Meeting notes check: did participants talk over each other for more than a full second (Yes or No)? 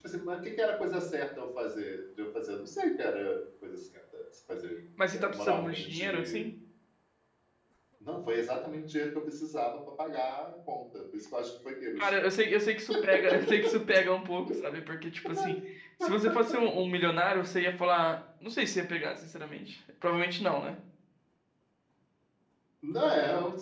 Yes